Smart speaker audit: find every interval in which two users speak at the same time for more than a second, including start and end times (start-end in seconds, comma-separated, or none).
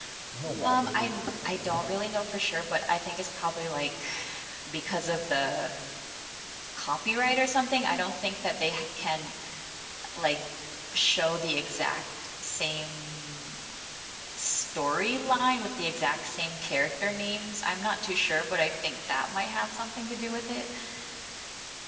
0.6-1.9